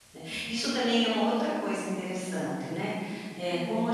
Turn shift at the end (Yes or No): No